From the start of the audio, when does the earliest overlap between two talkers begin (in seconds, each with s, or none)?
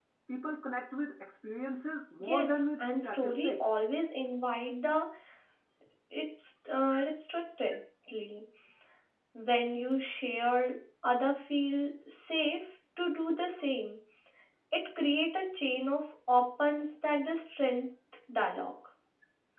2.2 s